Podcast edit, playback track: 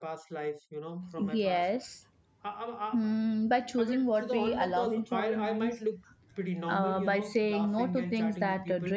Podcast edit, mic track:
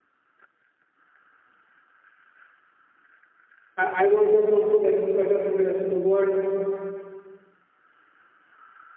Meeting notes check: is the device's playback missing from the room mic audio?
Yes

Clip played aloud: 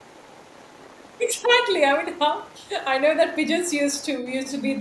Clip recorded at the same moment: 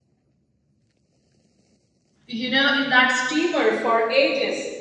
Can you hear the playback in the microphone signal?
No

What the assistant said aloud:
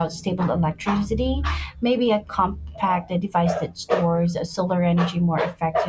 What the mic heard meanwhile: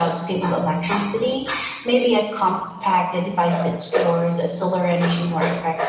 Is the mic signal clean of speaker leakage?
No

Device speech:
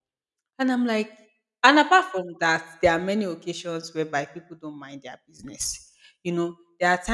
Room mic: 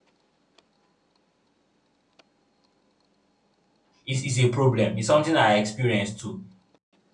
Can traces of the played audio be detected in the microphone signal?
No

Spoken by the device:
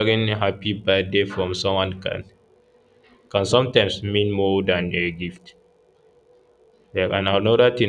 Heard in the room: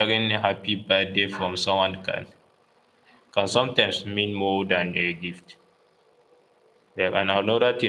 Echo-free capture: No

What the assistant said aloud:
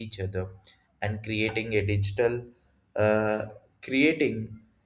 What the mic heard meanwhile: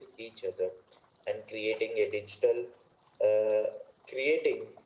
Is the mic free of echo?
No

